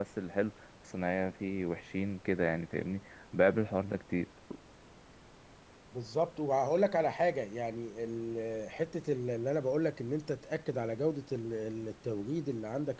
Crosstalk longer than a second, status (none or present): none